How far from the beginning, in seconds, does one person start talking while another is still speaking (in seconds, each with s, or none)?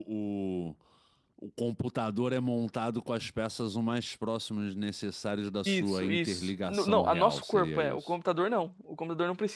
5.7 s